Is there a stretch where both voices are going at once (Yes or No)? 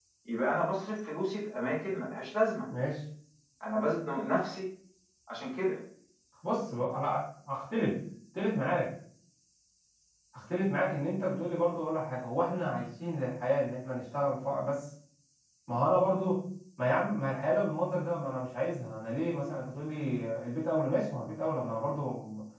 No